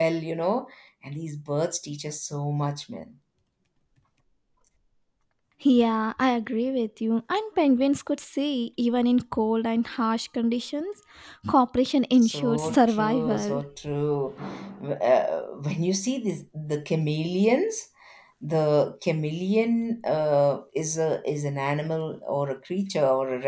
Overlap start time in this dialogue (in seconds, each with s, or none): 12.2 s